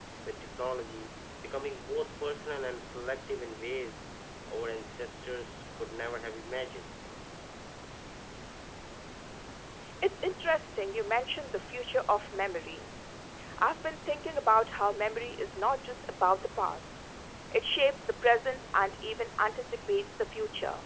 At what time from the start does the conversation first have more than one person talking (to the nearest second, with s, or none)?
none